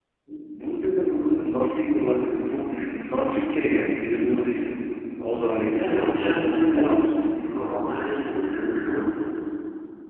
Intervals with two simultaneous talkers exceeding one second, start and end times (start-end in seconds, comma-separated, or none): 5.7-7.1